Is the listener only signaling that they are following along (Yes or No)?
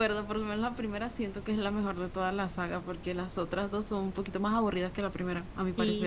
No